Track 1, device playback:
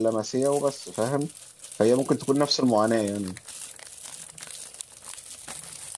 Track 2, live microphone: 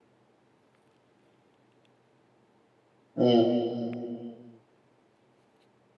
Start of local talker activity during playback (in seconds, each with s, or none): 3.2 s